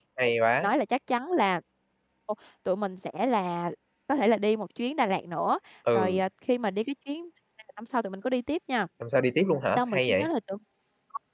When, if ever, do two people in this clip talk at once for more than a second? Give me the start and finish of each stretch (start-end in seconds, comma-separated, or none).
none